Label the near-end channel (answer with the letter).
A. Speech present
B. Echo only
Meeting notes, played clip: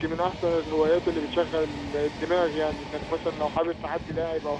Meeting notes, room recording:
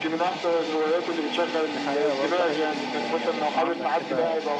A